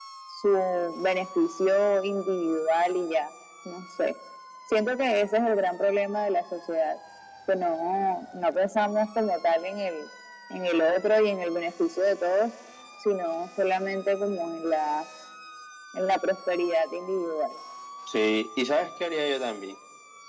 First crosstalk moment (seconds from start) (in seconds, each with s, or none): none